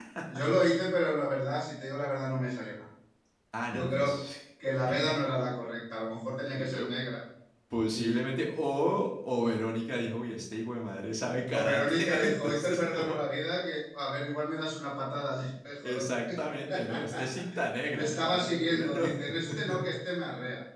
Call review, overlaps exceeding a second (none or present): present